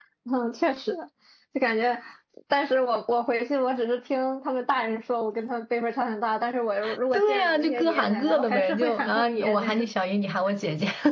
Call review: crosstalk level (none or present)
present